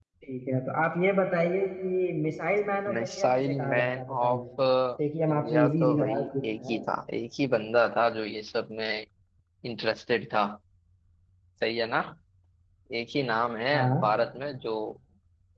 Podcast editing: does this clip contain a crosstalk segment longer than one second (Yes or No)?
Yes